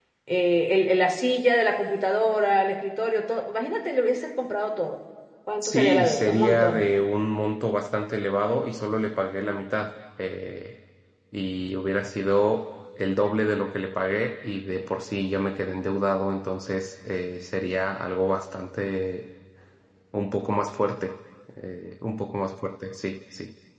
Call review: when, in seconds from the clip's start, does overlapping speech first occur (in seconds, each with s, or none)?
5.6 s